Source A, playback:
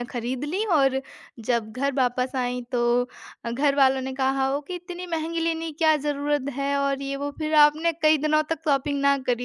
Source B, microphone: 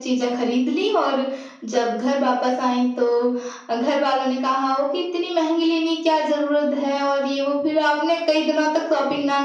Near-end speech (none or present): none